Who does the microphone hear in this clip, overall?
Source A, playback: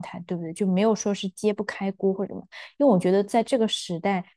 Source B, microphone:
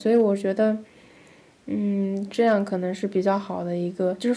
user only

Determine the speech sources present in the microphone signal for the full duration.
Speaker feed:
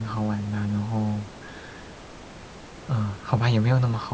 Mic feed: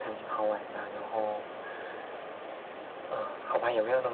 echo only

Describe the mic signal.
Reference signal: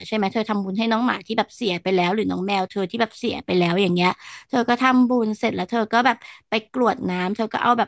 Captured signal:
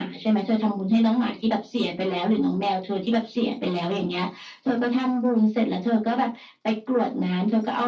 echo only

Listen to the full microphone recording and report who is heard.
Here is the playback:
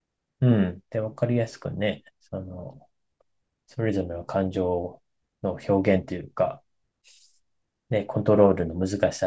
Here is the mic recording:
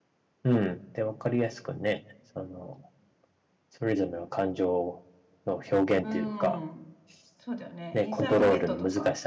both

